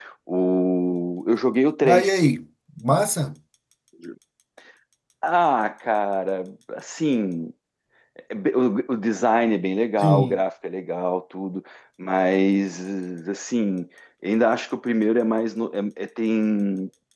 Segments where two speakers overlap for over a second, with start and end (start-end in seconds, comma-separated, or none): none